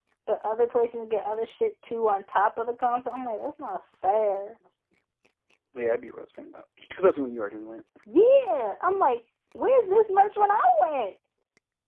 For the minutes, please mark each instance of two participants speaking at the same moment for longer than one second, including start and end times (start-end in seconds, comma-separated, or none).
none